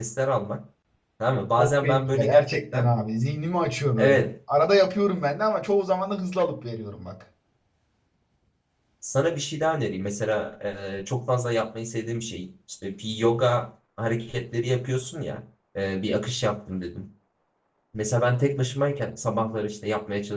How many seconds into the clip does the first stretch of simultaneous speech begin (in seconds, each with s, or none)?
1.6 s